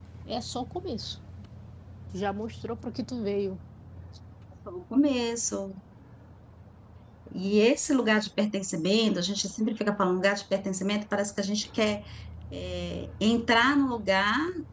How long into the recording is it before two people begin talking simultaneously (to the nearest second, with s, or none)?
none